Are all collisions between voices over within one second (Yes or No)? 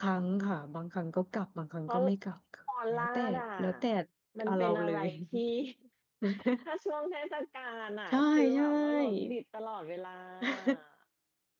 No